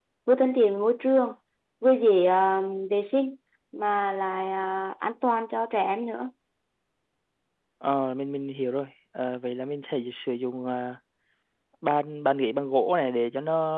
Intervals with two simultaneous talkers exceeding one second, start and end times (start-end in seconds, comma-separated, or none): none